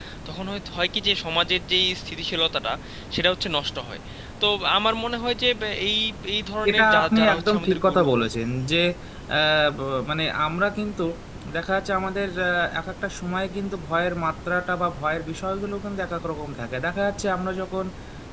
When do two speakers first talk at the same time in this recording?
6.7 s

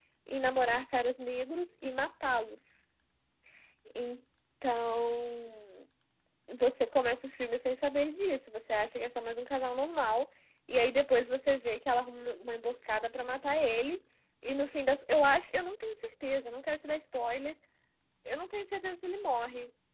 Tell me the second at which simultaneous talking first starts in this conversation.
none

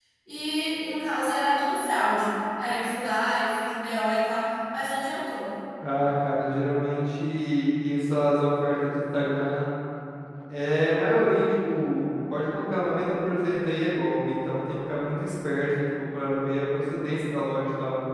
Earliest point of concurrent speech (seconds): none

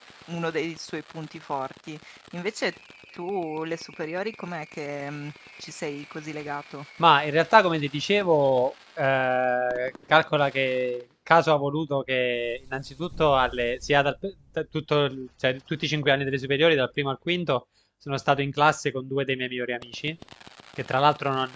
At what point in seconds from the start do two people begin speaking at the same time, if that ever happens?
none

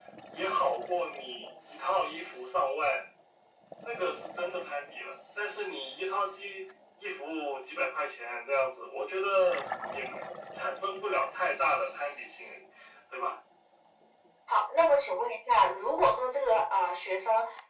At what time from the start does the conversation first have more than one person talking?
none

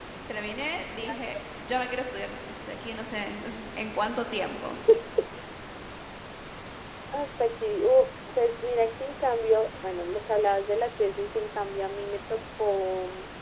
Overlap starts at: none

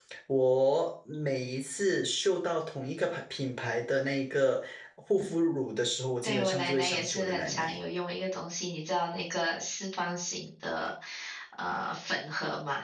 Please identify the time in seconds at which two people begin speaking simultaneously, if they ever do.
6.2 s

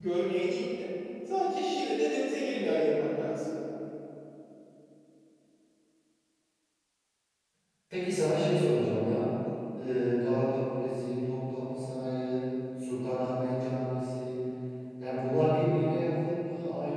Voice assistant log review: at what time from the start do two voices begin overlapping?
none

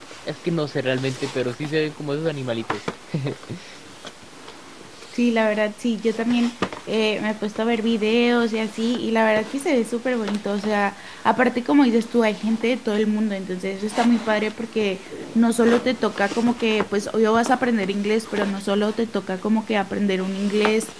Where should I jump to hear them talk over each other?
none

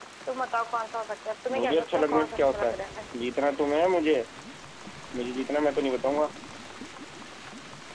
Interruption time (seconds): 1.5 s

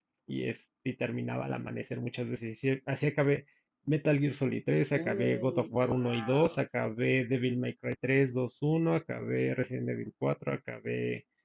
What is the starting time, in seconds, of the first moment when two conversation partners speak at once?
4.9 s

